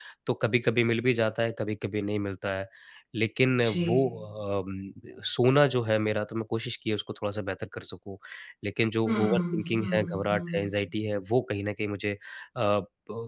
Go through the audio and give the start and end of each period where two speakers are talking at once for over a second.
9.1-10.7

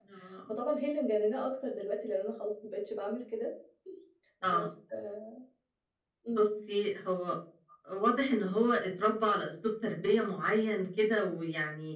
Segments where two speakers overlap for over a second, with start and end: none

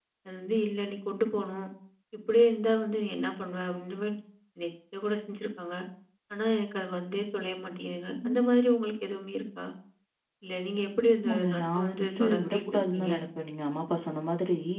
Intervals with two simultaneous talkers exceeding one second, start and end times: 11.2-13.1

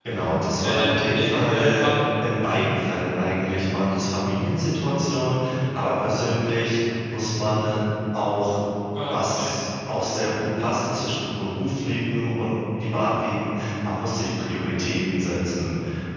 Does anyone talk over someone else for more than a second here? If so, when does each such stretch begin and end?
0.6-1.9

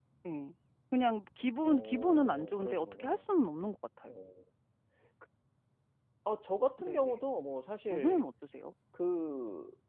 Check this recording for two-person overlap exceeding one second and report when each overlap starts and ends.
1.6-3.3

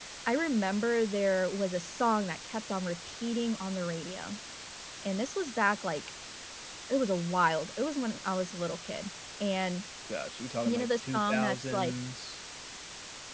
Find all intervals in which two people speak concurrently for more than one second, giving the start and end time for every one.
10.6-11.9

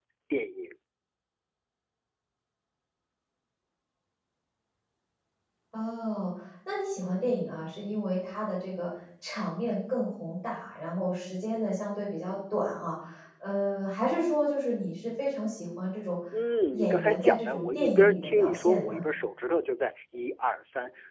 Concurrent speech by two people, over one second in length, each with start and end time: 16.7-19.0

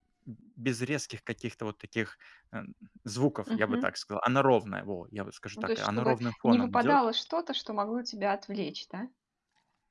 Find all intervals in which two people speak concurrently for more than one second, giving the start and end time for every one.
5.6-7.0

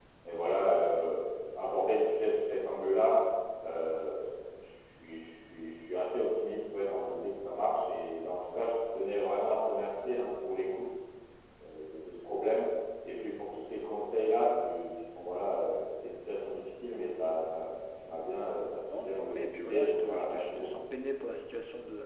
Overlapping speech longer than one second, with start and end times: 18.9-20.7

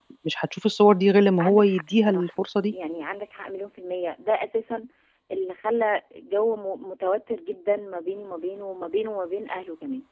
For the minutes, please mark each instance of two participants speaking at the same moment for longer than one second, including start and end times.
1.4-2.7

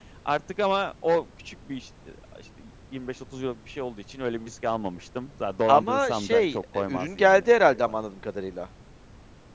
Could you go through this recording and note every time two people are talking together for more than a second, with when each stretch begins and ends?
5.7-8.0

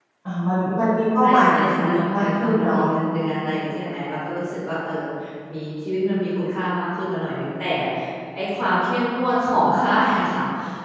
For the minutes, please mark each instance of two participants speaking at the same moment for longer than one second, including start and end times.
1.2-2.8

